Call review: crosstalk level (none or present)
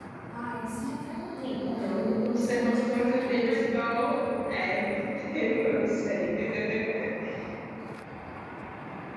present